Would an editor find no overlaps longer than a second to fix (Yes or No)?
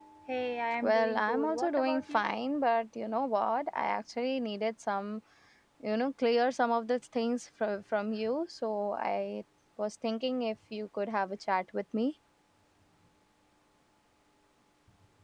No